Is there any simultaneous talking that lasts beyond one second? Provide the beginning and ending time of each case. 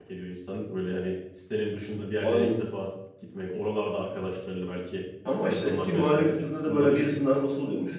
5.5-7.2

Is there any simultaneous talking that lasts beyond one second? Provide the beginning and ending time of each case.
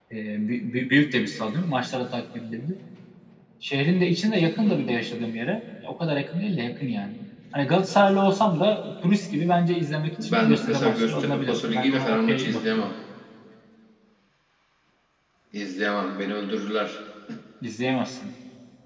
10.2-12.8

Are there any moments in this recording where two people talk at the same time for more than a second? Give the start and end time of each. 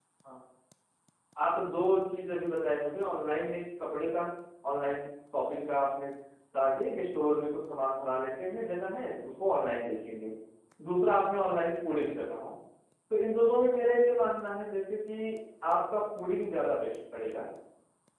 none

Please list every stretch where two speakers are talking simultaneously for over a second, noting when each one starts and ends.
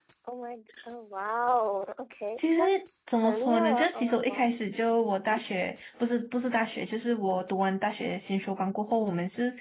3.2-4.6

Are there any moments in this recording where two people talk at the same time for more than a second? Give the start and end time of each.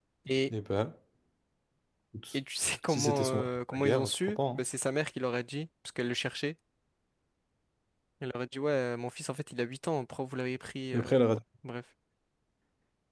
2.9-4.6

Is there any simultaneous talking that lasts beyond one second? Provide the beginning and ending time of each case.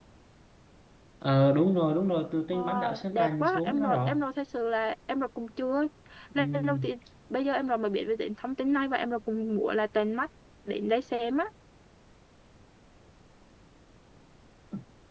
2.5-4.1

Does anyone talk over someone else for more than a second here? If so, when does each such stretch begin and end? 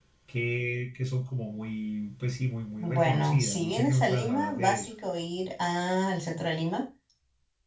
2.8-4.9

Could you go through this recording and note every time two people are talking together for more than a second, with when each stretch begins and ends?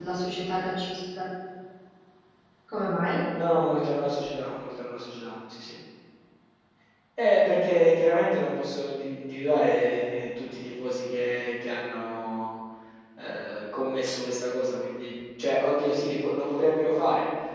none

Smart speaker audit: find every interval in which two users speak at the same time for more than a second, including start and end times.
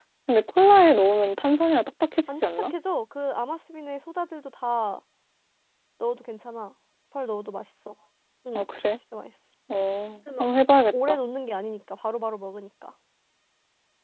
none

